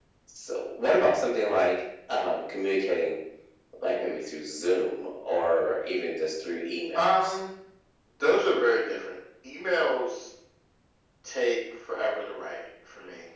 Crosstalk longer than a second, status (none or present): none